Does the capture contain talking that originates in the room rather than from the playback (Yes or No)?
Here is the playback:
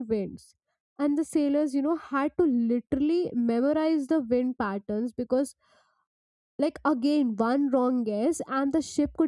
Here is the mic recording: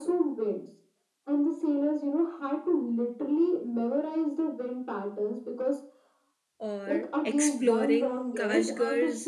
Yes